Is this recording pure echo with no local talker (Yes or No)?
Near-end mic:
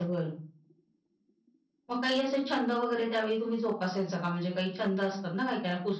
No